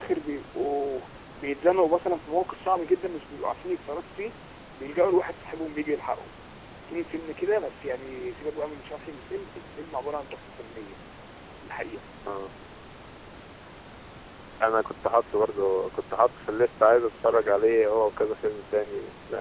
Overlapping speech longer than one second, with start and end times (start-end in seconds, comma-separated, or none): none